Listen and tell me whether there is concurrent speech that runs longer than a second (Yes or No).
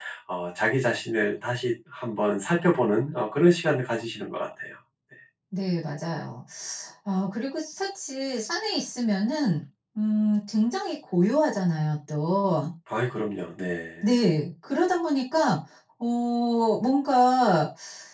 No